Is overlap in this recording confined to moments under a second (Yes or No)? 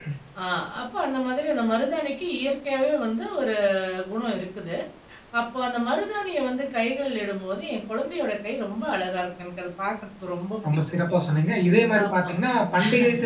Yes